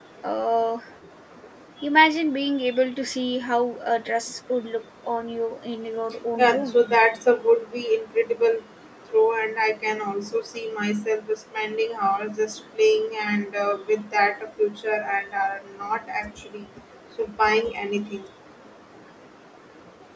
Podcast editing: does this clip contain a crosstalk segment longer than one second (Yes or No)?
No